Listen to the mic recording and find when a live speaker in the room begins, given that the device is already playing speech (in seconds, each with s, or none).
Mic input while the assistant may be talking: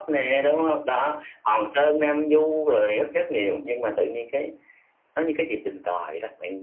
none